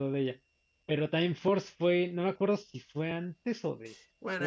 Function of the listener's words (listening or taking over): taking over